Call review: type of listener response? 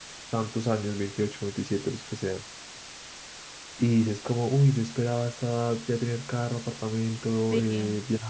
listening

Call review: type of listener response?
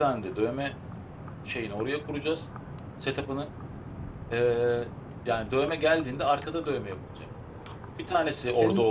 listening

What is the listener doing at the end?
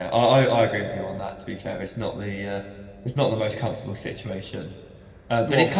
listening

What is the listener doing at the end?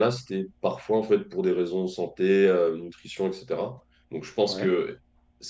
listening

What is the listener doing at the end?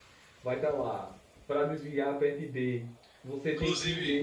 listening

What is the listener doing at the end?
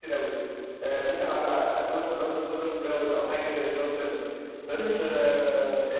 listening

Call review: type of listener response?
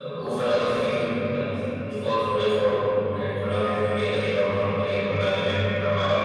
taking over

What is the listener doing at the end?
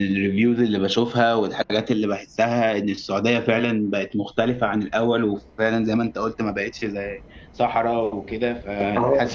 taking over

